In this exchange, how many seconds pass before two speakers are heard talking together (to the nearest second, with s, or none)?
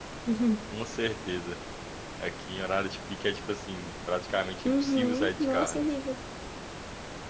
5 s